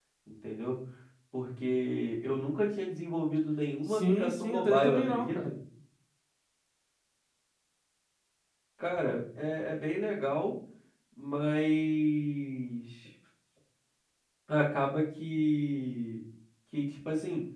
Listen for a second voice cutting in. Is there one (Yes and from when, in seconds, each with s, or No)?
Yes, from 3.9 s